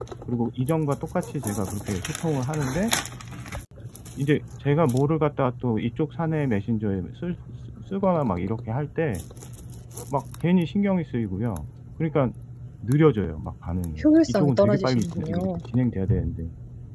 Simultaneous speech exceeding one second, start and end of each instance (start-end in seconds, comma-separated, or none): 14.0-15.5